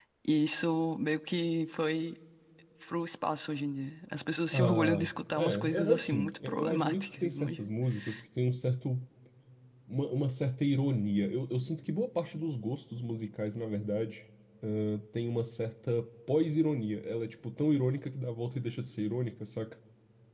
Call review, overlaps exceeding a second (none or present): present